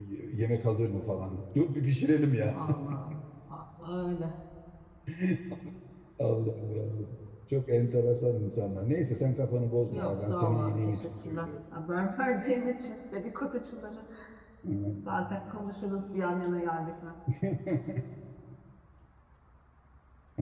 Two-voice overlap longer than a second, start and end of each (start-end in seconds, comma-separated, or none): 9.9-11.5